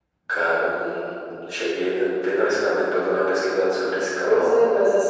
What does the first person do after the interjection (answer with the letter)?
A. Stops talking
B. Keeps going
A